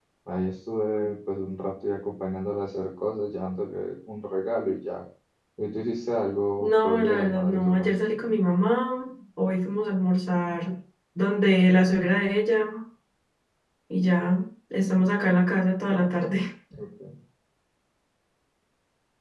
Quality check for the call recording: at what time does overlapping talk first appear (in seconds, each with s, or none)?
6.6 s